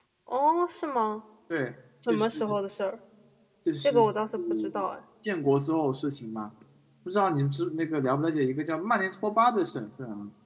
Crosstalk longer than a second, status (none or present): none